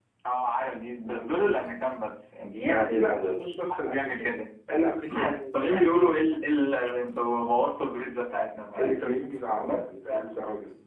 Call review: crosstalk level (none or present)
present